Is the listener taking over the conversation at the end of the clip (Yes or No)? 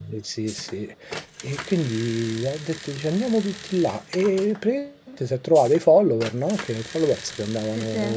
No